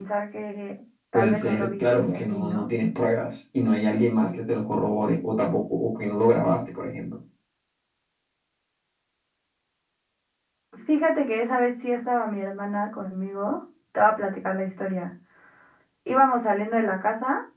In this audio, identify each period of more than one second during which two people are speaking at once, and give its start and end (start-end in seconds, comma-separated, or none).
1.1-2.7